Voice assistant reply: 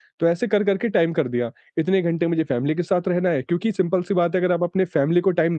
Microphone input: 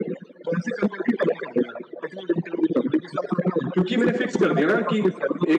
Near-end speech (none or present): present